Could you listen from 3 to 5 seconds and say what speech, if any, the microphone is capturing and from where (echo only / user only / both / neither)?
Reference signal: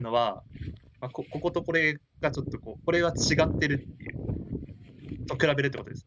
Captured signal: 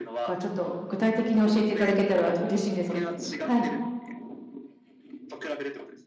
both